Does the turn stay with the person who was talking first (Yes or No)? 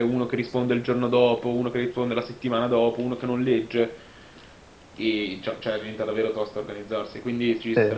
No